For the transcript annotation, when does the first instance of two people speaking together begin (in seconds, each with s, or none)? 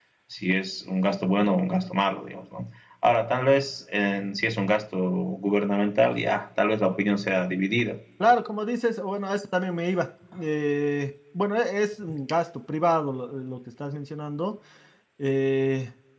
none